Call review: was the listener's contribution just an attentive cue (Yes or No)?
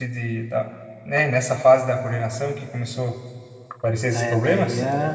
No